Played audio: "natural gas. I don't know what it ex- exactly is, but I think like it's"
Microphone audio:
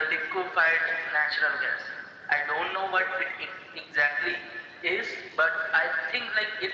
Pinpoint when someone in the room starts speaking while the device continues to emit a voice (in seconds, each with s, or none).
none